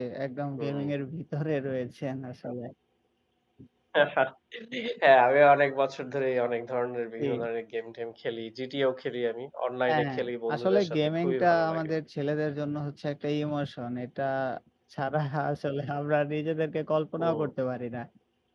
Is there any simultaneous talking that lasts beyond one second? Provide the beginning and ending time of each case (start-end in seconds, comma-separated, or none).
10.5-11.9